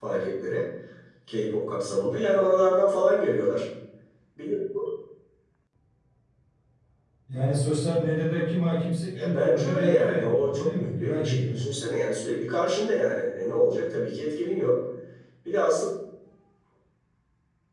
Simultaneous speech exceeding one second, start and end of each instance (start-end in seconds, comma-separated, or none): 9.1-11.6